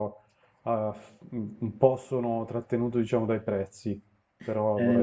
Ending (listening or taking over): taking over